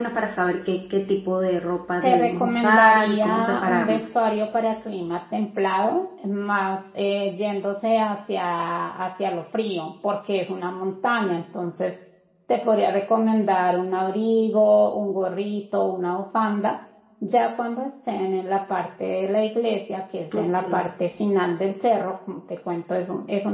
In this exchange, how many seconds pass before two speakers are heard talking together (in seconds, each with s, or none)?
2.0 s